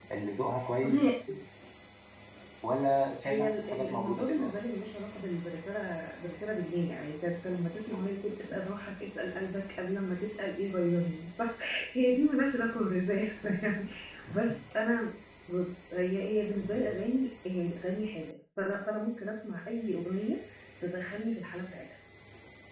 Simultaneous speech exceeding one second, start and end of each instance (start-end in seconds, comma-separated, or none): 3.2-4.5